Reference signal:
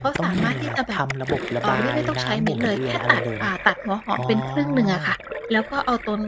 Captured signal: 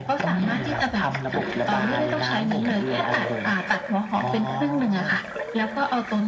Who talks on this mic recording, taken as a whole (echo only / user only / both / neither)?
echo only